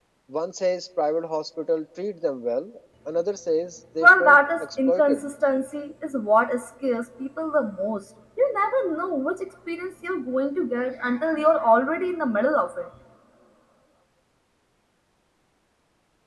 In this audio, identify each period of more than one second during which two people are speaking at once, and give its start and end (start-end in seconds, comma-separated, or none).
4.0-5.2